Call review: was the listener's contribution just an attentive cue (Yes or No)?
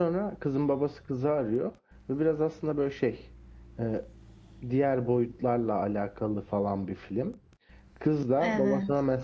Yes